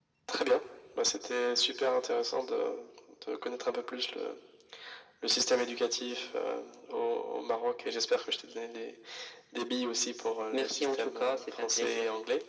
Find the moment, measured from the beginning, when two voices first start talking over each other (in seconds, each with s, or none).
10.5 s